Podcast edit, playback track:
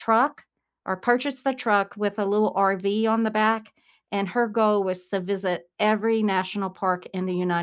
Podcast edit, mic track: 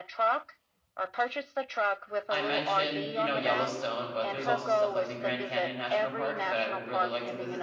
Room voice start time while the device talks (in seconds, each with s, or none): 2.3 s